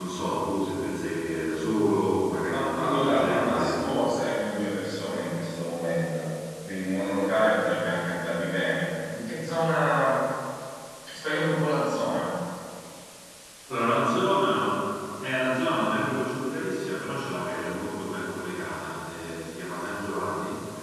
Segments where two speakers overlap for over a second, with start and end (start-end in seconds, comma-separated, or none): 2.5-3.8